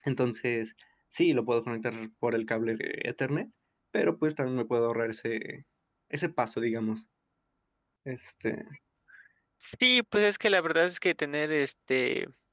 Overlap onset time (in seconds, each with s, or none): none